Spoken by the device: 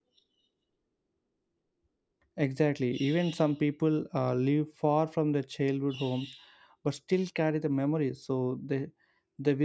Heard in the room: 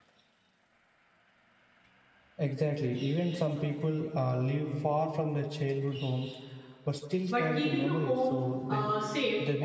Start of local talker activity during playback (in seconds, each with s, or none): 7.3 s